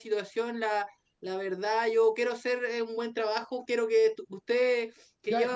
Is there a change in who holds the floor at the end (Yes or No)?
Yes